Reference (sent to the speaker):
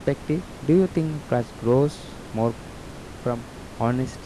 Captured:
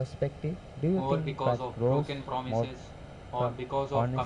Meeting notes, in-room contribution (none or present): present